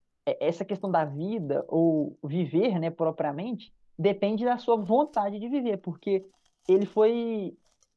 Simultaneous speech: No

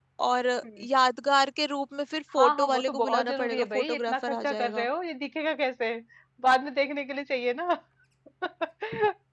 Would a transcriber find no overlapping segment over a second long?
No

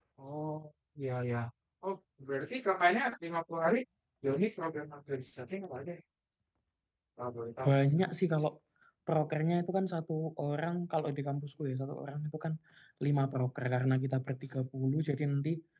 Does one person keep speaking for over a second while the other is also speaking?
No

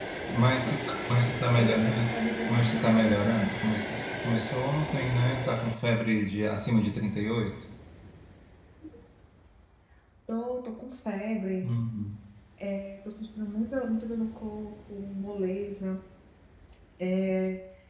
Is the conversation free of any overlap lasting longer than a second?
No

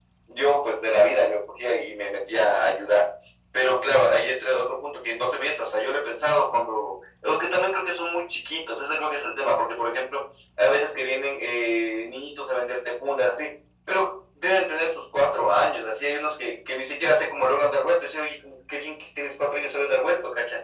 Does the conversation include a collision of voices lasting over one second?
No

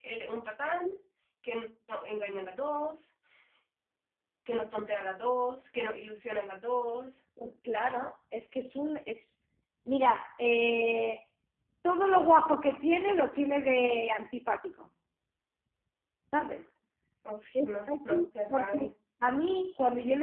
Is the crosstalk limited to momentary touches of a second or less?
No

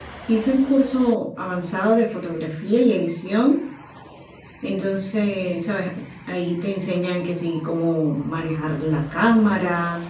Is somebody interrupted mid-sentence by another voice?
No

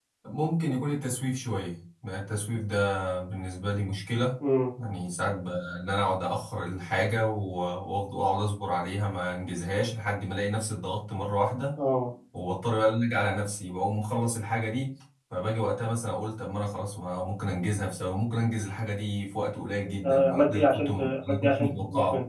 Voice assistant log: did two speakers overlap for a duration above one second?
Yes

